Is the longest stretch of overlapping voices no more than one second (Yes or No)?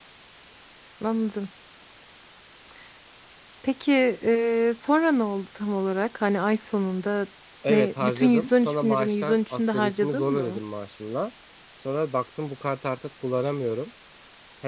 No